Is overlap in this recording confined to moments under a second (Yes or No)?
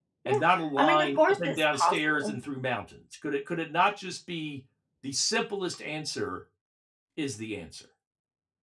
No